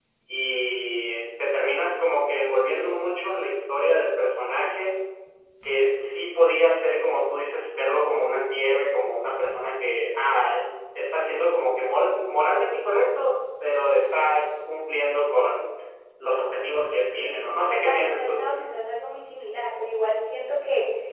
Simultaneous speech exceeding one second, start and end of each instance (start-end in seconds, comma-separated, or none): 17.0-18.4